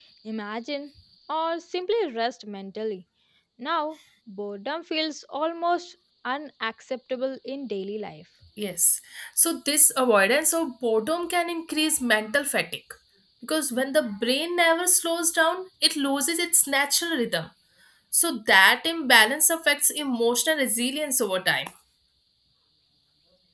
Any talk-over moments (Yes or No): No